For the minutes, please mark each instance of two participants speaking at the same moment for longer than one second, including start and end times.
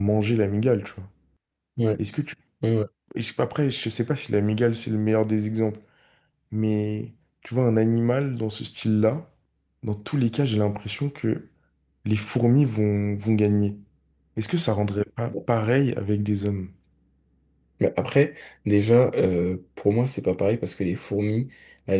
none

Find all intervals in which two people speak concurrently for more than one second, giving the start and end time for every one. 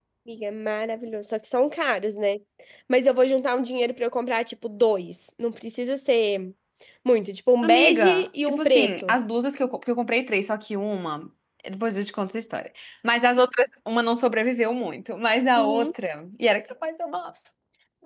7.6-9.2

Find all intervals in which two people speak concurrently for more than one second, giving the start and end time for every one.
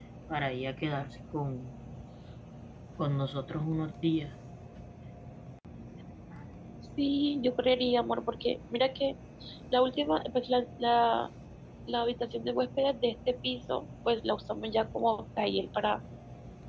none

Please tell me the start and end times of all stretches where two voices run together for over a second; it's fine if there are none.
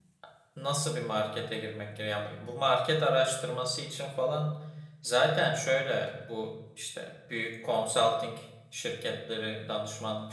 none

